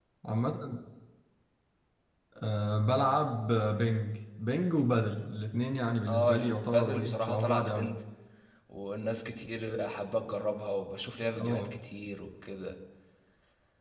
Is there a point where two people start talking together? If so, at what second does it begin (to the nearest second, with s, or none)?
6 s